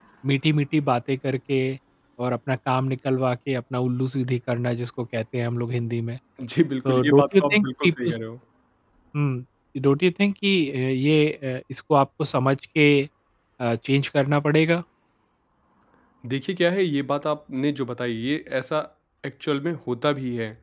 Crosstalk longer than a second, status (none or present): present